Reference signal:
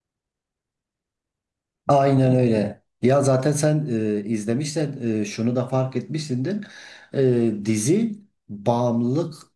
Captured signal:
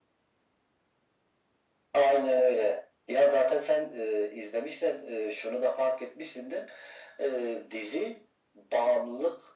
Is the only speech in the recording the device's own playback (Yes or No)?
Yes